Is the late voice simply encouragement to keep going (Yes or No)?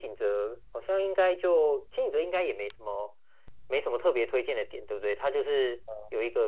Yes